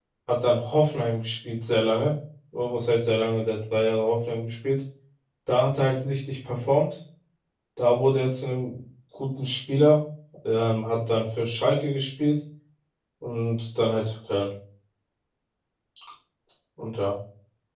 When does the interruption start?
none

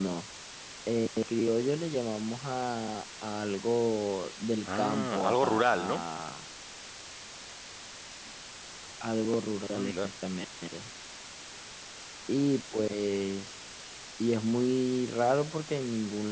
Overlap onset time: 4.8 s

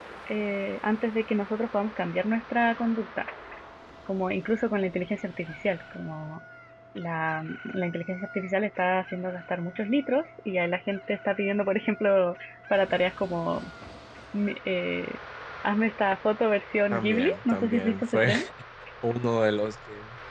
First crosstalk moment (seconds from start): 16.9 s

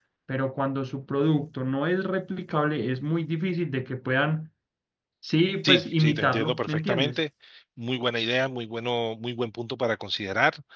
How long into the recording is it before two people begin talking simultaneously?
5.6 s

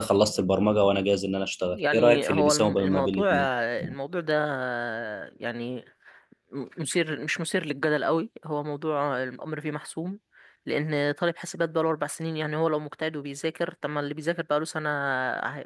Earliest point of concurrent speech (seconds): 1.7 s

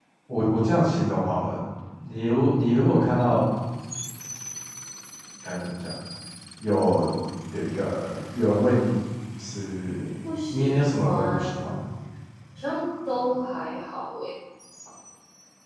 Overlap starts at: 10.5 s

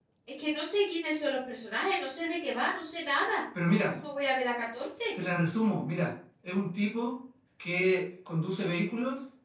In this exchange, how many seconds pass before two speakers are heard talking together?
none

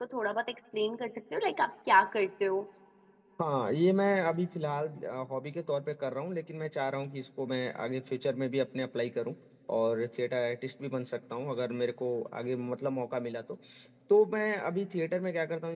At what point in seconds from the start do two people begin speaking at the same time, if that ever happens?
none

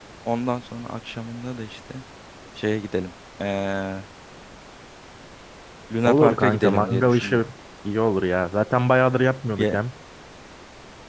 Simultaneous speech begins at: 6.0 s

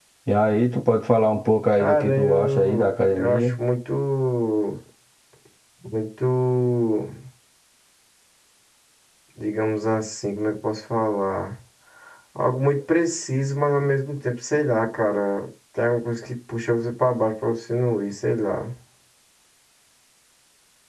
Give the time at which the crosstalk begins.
1.7 s

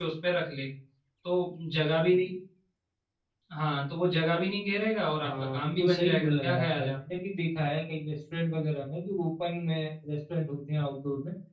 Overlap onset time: 5.2 s

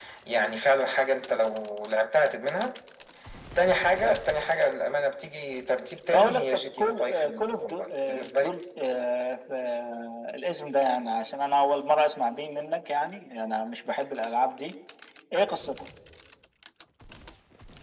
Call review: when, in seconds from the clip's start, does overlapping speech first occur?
6.1 s

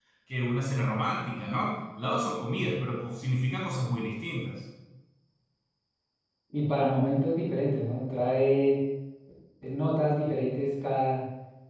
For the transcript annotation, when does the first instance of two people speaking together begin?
none

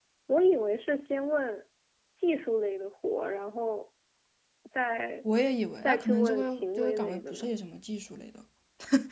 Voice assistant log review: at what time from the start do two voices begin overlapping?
5.8 s

